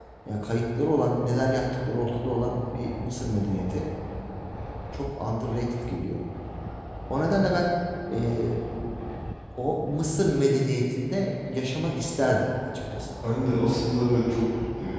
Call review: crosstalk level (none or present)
none